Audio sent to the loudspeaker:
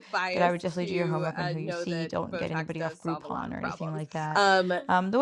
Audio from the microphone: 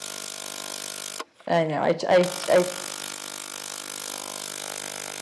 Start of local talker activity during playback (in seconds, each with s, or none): 1.4 s